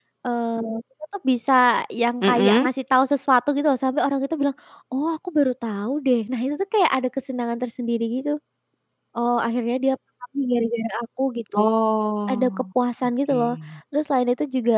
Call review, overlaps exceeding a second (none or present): none